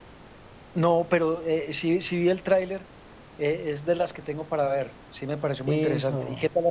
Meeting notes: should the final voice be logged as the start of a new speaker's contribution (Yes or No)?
Yes